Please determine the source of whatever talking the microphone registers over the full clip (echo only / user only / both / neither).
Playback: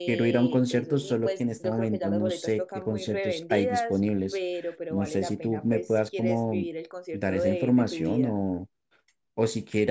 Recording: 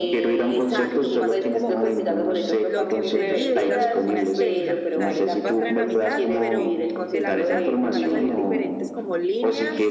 both